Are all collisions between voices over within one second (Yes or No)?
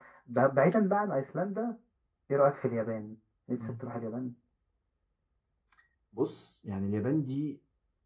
Yes